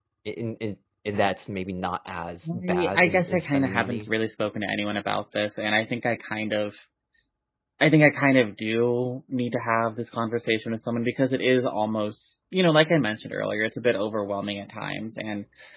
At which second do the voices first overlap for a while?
2.5 s

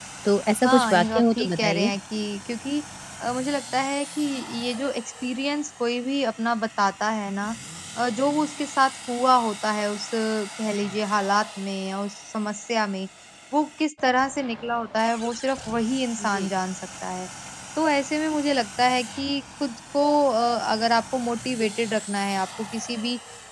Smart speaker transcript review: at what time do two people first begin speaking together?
0.7 s

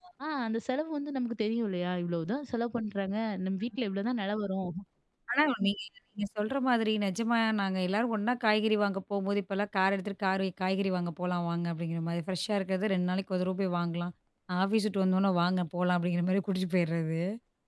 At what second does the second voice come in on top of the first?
none

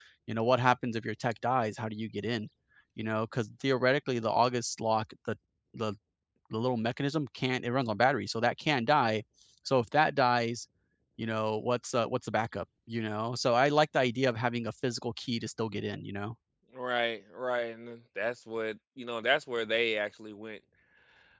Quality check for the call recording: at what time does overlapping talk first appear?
none

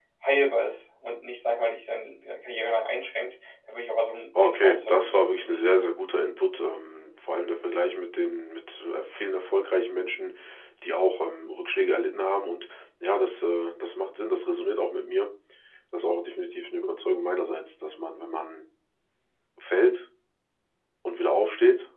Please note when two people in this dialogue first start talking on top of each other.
4.4 s

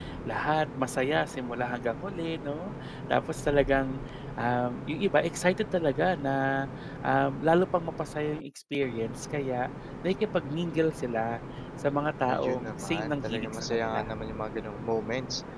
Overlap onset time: 12.3 s

